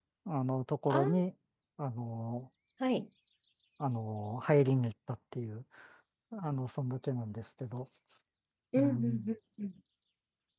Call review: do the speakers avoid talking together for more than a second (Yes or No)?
Yes